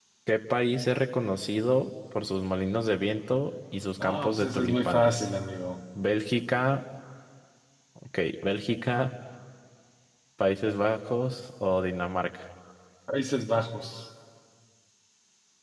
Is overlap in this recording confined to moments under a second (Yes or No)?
No